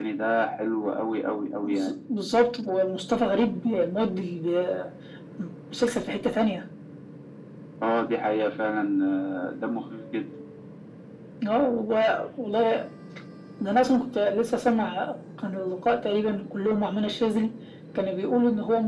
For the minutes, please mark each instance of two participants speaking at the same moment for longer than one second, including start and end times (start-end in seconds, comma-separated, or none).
none